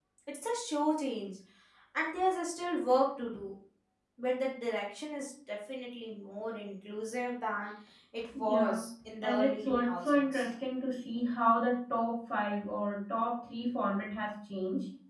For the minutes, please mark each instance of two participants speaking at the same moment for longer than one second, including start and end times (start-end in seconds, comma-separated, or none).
9.2-10.5